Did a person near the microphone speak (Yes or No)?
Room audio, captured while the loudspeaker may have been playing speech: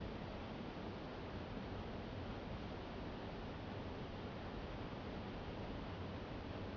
No